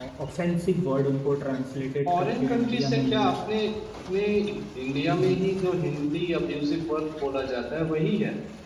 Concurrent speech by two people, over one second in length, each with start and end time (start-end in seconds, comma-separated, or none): 2.1-3.3